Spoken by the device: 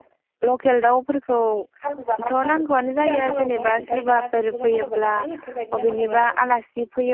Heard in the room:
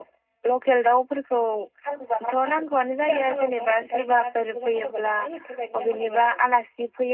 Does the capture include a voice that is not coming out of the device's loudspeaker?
No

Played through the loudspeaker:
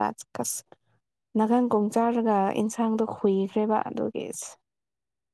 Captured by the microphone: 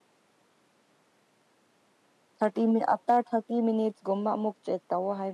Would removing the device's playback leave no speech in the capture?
No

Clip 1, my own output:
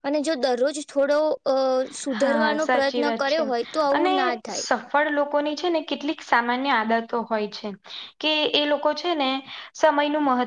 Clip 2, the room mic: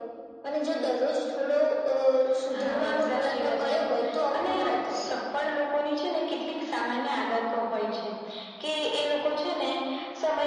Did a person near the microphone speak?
No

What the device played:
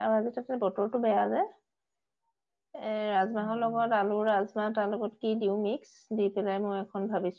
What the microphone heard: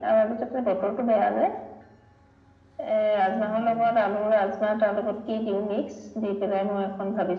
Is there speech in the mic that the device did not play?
No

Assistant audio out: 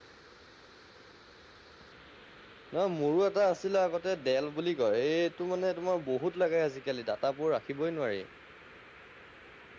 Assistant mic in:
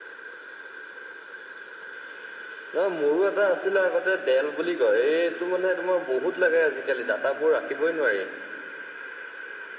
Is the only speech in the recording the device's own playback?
Yes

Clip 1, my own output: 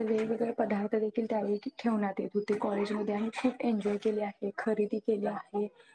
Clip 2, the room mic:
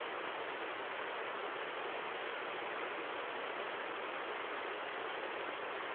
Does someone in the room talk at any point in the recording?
No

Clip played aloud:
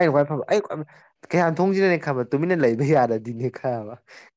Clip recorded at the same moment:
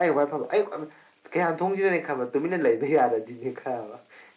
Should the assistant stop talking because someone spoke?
No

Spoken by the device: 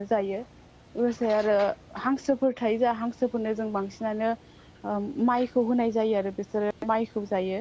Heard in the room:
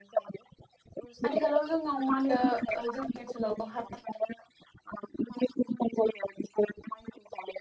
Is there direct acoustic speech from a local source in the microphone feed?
Yes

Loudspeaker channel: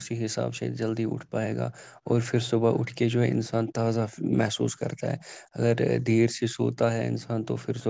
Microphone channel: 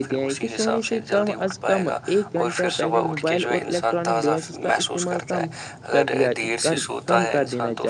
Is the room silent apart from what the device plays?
No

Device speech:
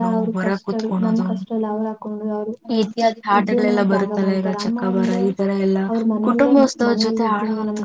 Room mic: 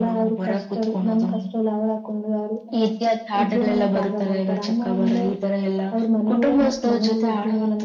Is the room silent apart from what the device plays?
Yes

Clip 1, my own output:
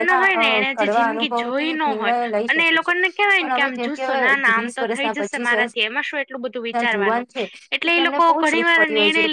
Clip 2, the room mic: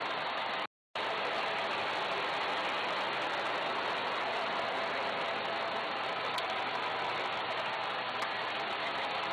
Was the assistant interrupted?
No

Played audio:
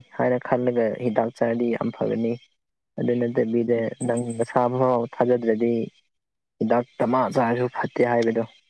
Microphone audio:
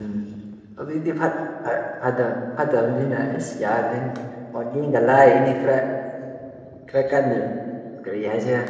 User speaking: Yes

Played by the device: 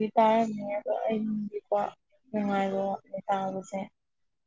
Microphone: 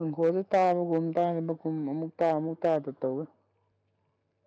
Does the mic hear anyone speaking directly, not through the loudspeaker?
Yes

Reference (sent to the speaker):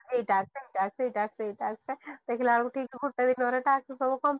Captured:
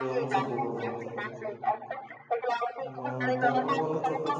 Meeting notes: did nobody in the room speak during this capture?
No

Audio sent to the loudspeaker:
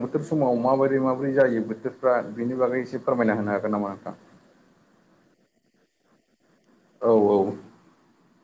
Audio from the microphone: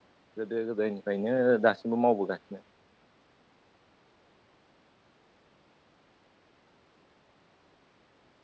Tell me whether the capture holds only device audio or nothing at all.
No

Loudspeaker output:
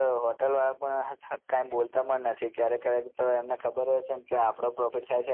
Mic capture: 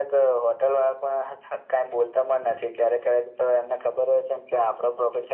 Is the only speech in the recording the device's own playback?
Yes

